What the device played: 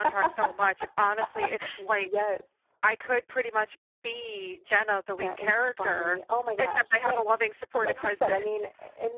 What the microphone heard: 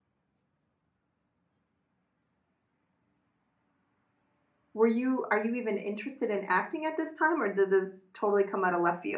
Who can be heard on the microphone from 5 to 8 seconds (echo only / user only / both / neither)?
user only